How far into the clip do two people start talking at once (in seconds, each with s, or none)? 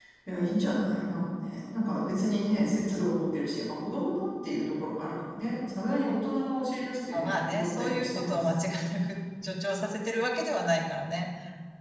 7.1 s